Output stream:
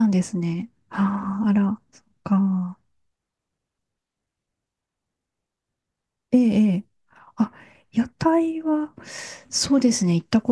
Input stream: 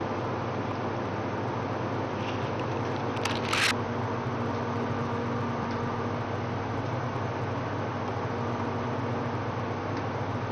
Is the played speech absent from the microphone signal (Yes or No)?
Yes